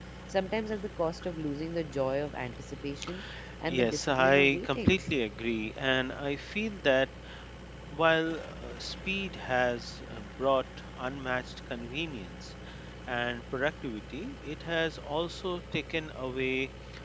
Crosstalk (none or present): present